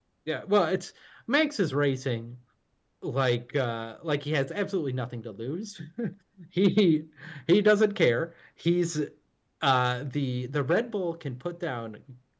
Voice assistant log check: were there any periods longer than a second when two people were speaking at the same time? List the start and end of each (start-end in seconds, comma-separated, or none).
none